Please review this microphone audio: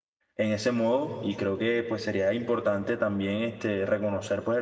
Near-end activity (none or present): present